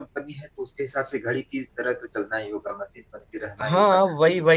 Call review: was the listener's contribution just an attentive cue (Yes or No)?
No